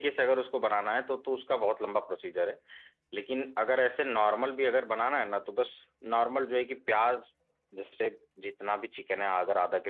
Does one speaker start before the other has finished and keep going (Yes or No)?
No